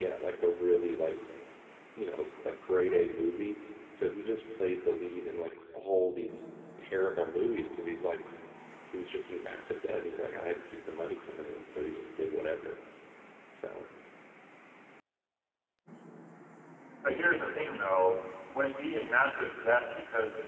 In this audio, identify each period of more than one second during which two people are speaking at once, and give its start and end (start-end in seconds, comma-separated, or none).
none